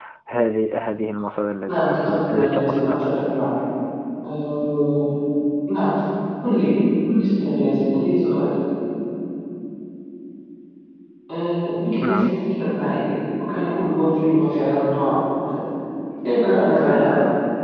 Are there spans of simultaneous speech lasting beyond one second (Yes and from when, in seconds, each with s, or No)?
Yes, from 1.7 s